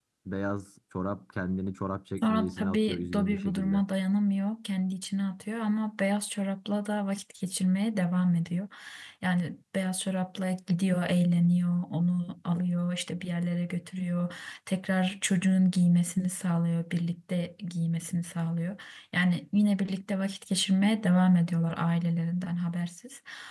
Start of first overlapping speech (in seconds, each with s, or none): 2.2 s